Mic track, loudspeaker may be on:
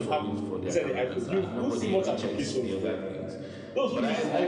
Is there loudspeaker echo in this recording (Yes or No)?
Yes